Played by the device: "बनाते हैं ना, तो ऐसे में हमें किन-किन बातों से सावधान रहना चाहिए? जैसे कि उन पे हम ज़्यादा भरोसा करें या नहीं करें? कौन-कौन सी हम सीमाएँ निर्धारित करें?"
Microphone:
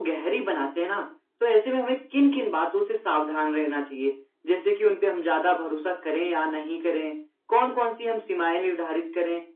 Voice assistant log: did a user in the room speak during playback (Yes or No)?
No